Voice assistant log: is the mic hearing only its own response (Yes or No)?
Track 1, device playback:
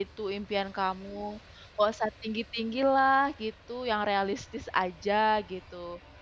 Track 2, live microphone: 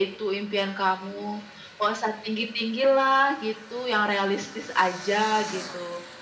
Yes